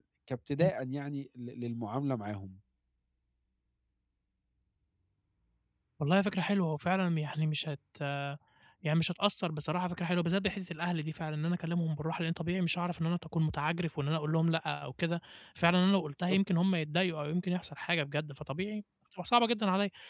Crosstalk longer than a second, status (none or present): none